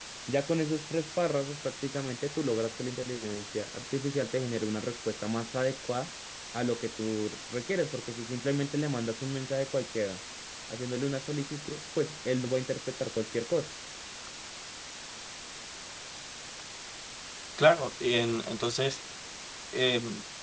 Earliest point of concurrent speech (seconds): none

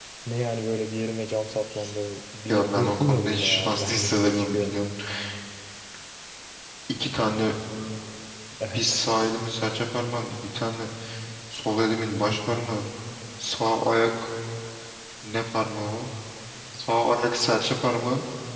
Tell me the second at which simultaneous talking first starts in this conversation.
2 s

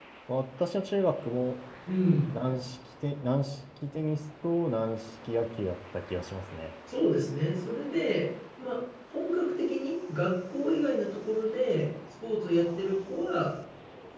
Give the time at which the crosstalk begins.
none

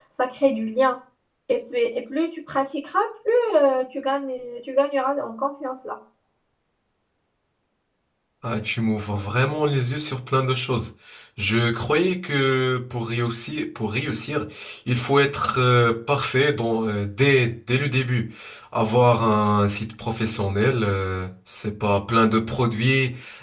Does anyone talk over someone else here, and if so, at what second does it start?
none

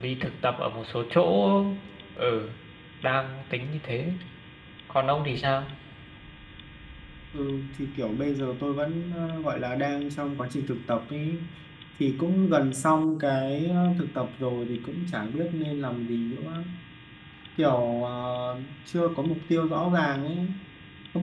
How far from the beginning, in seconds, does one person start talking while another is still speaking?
none

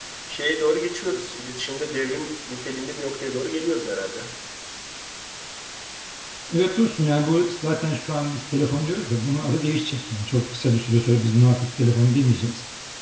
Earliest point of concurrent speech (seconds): none

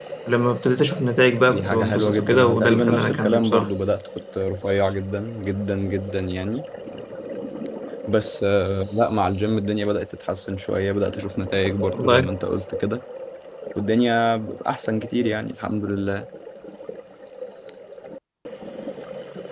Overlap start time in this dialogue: 2 s

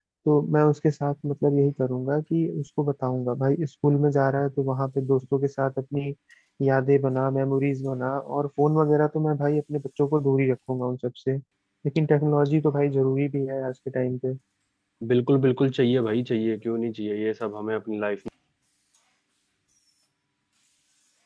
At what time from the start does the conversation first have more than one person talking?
none

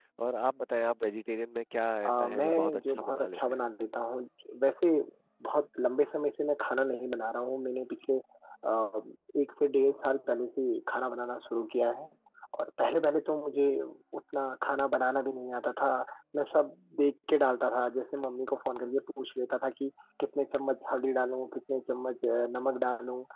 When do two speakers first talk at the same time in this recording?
2 s

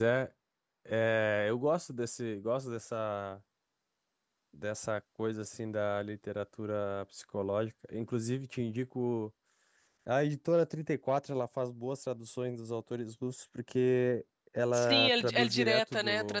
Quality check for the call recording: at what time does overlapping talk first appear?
15 s

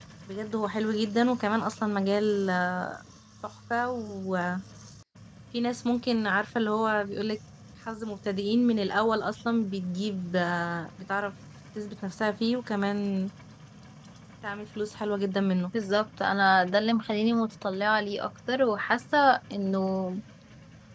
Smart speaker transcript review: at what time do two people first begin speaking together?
none

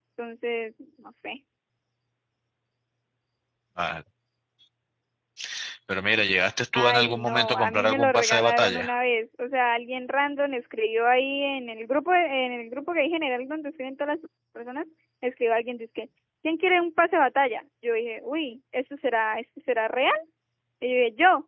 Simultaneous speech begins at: 7 s

